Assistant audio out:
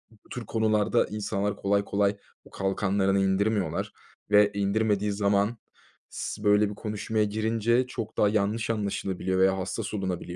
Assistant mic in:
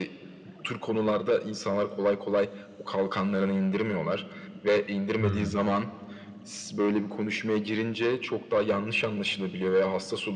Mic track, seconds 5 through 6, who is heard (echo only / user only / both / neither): both